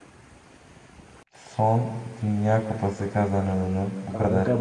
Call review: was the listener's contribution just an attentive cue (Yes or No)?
No